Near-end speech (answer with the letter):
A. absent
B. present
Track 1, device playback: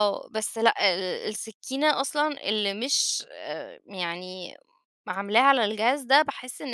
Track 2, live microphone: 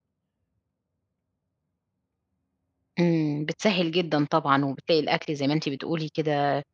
B